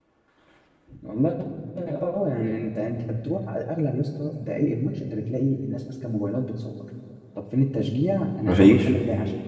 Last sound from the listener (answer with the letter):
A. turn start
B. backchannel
B